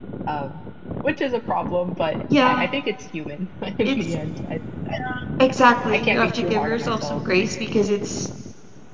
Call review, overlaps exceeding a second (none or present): present